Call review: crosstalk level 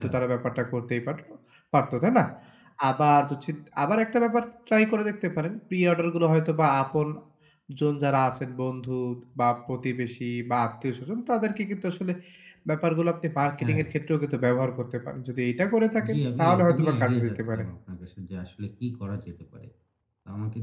present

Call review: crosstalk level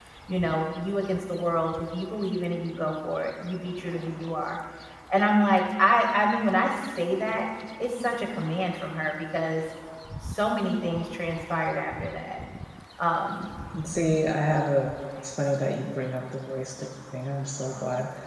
none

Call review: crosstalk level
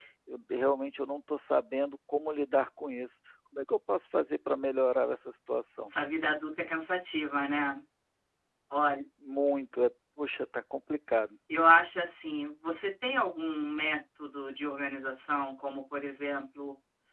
none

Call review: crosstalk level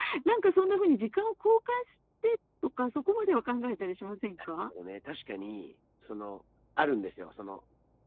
none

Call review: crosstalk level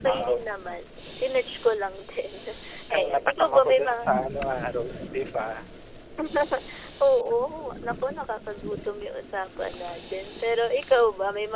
present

